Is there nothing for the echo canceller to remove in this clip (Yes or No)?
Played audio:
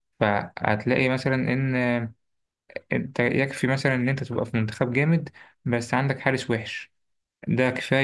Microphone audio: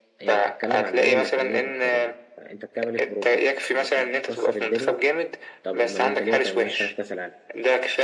No